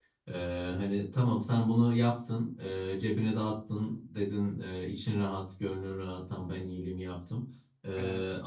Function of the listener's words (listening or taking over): listening